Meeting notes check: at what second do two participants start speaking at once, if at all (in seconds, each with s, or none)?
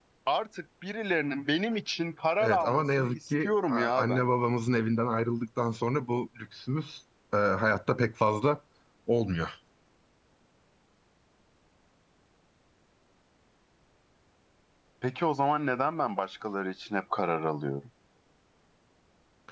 2.4 s